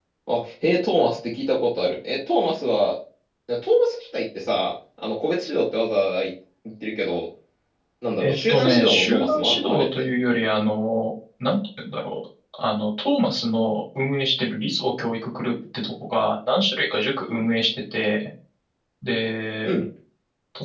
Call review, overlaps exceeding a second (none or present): present